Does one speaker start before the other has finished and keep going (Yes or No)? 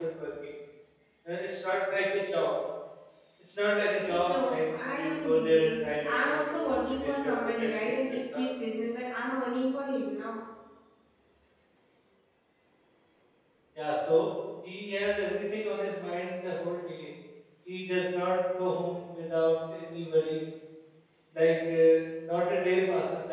Yes